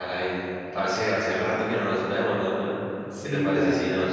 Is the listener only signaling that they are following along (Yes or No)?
Yes